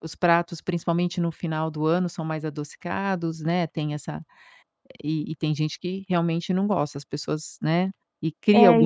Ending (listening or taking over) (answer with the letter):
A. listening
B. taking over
B